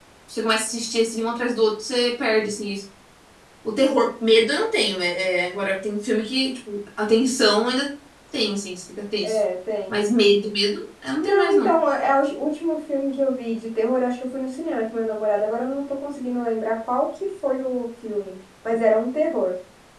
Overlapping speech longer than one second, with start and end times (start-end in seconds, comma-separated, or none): none